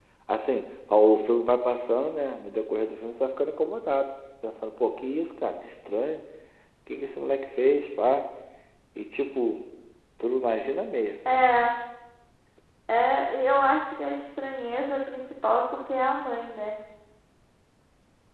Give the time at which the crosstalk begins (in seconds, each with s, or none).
none